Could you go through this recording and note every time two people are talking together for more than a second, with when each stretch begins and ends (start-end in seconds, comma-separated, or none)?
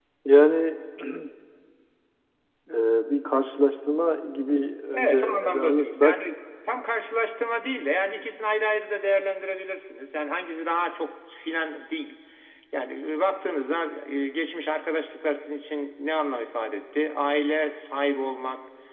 4.9-6.2